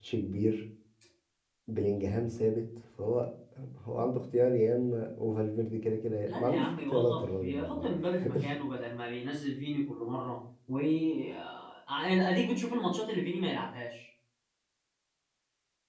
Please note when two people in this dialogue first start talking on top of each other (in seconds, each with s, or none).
6.3 s